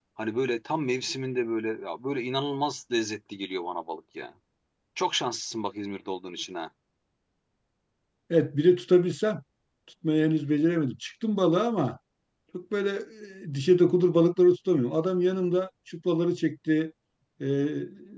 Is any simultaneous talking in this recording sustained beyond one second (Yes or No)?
No